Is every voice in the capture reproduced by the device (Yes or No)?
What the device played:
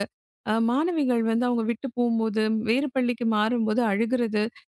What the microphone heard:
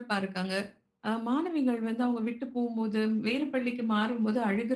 Yes